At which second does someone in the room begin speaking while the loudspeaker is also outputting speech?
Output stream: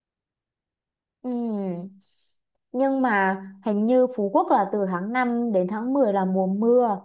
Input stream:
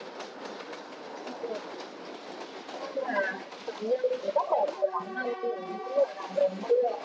none

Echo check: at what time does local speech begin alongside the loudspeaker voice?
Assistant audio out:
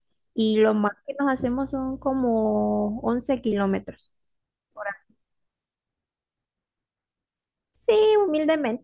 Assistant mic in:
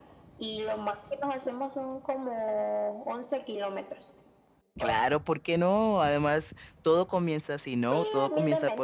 4.8 s

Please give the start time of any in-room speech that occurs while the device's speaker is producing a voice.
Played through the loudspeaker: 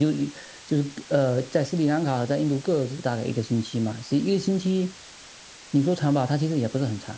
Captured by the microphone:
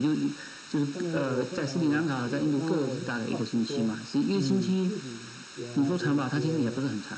0.9 s

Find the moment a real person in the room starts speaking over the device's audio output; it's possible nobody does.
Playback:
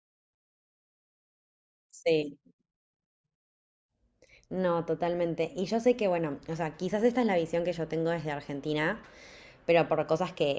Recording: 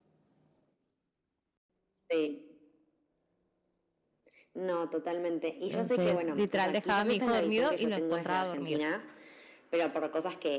5.6 s

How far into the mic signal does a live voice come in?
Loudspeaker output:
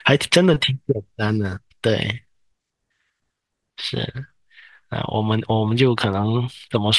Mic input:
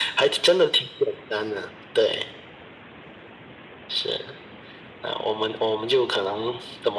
none

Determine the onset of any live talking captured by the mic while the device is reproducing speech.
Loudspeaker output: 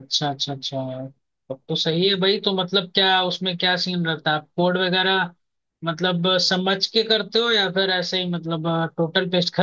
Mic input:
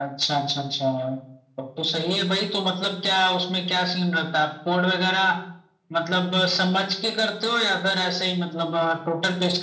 none

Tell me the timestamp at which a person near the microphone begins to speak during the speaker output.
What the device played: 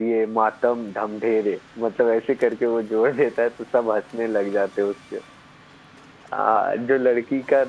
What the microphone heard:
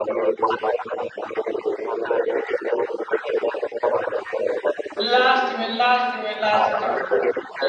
5.0 s

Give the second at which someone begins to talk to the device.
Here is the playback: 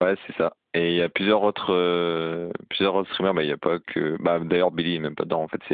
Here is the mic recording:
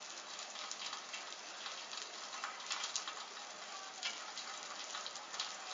none

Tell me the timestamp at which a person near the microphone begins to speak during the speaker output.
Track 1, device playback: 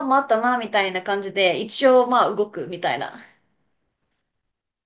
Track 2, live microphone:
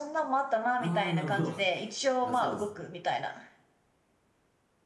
0.8 s

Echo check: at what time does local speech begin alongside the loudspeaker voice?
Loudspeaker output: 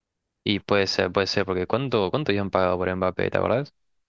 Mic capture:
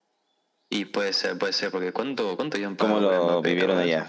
2.8 s

